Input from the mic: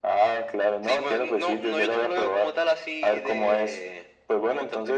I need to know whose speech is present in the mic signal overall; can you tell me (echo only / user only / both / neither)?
echo only